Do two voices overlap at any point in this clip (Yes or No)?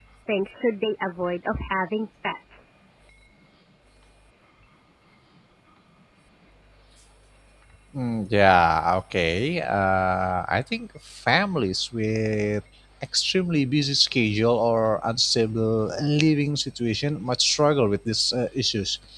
No